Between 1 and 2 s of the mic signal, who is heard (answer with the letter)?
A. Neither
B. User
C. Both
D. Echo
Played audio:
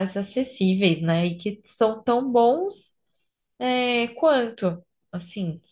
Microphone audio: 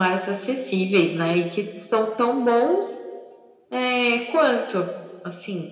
D